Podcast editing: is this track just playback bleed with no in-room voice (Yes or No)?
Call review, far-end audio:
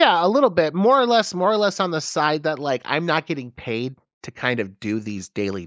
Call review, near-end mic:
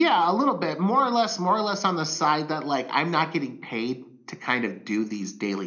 Yes